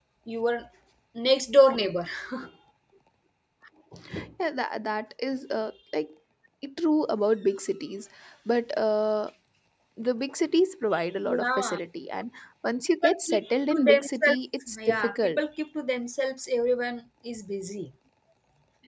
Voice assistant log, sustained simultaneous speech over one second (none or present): present